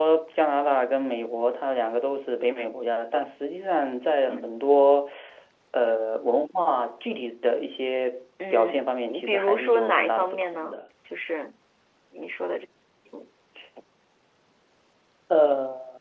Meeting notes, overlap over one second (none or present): present